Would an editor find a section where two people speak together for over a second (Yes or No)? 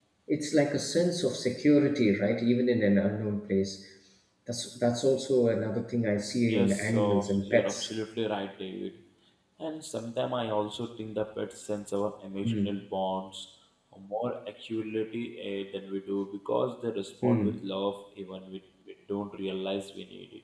Yes